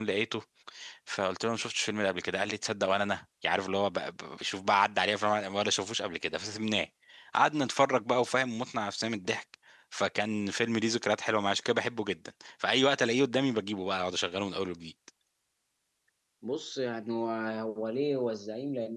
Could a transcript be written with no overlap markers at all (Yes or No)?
Yes